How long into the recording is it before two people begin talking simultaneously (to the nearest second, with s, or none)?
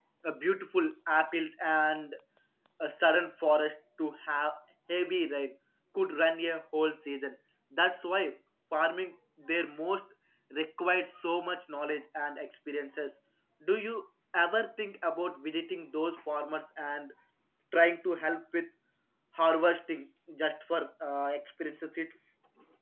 none